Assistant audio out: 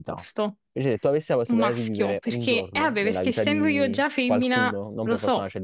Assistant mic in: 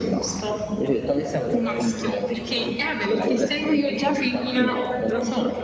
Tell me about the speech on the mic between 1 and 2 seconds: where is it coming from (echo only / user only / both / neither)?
echo only